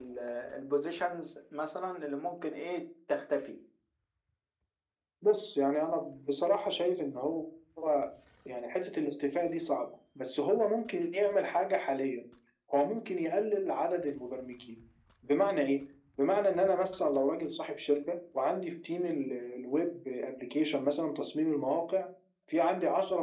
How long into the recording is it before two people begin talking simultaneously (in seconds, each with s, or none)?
none